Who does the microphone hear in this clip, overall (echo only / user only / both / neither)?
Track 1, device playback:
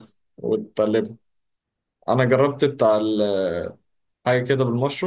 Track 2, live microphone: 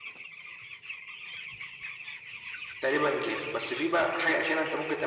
user only